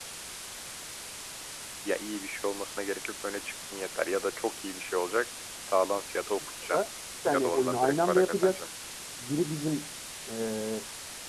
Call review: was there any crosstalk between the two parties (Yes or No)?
Yes